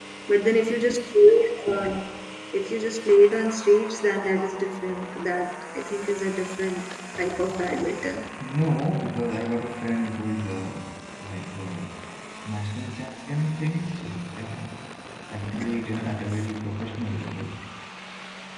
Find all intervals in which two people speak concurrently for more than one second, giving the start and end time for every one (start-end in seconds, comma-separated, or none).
none